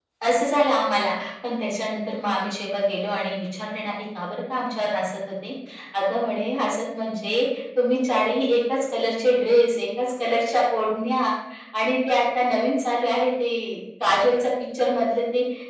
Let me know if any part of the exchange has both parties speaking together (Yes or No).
No